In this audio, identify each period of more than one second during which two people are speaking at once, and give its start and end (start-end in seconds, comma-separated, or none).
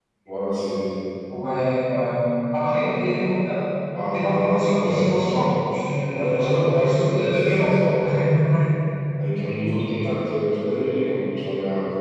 4.1-5.6, 6.1-7.7